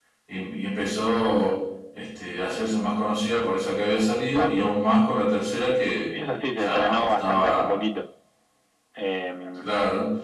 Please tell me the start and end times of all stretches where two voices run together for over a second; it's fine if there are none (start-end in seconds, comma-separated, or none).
6.6-7.8